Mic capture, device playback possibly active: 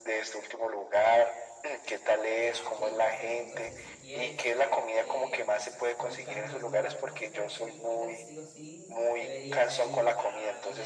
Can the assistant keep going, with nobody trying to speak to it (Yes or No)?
No